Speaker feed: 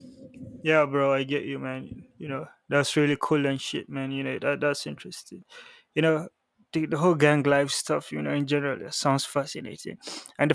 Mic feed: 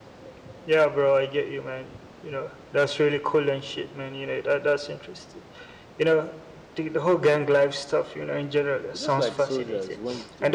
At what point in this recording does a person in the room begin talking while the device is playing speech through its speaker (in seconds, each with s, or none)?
8.9 s